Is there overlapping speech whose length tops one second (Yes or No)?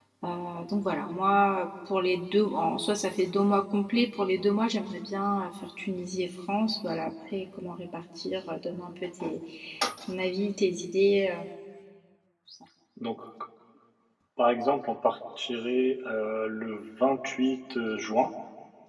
No